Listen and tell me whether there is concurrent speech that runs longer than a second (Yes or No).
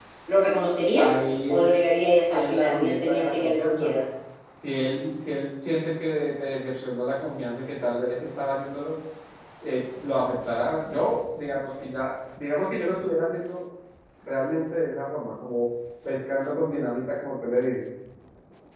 Yes